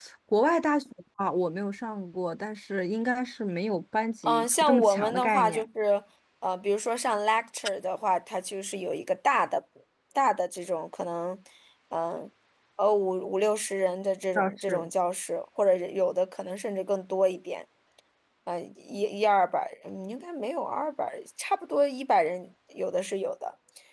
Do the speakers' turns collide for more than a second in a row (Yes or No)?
Yes